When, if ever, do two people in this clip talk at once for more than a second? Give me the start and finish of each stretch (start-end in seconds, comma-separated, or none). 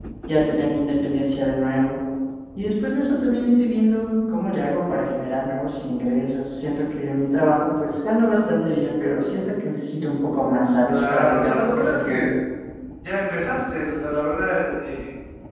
10.9-12.3